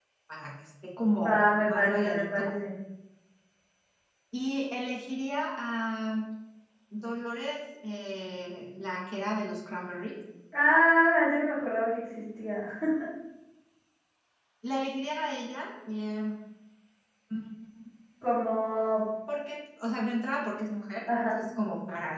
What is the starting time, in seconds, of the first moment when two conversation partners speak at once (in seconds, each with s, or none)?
1.2 s